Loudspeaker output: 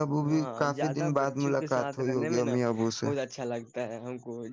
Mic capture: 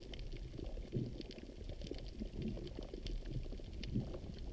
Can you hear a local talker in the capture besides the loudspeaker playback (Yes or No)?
No